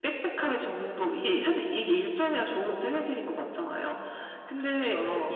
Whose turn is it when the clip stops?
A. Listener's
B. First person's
B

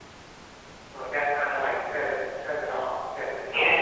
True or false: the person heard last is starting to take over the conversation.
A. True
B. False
A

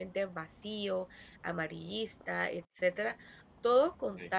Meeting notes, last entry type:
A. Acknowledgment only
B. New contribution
A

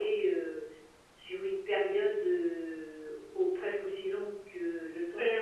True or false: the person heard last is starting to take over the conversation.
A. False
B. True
B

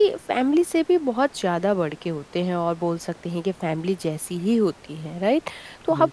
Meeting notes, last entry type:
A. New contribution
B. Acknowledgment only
B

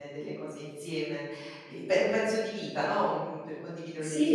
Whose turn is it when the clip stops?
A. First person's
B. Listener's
B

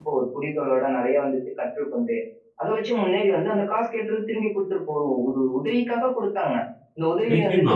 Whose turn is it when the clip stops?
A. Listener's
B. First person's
A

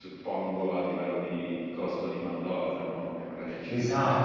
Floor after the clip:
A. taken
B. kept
A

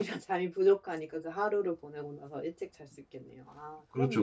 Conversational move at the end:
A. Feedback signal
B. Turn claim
B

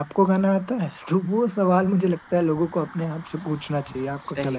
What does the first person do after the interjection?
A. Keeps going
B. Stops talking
B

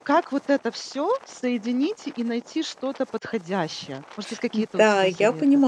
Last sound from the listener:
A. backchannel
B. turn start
B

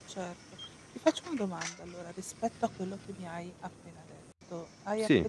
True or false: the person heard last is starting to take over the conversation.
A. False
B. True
A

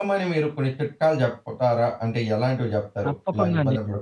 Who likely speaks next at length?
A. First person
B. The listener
B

